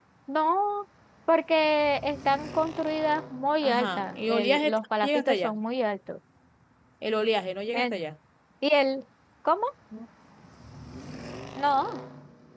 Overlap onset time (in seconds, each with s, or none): 3.6 s